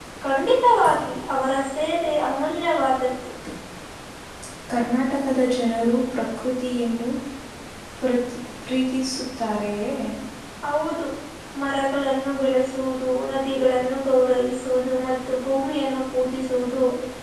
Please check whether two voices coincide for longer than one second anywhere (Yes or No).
No